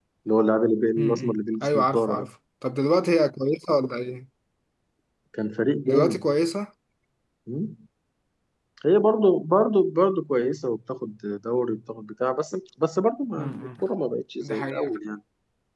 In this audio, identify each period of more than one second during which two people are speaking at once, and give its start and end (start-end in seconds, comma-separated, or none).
1.0-2.3